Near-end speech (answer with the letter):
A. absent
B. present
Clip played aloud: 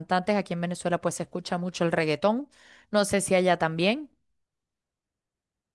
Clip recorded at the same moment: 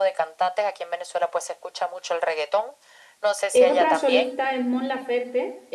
B